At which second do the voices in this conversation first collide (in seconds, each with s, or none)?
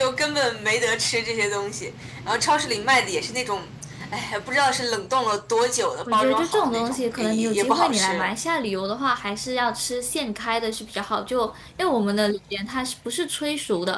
6.1 s